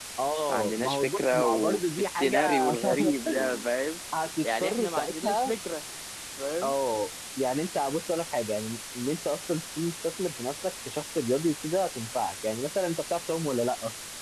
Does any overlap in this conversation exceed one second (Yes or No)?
Yes